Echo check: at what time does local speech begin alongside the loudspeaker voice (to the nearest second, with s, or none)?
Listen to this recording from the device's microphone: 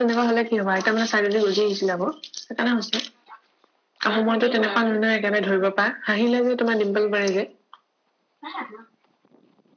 none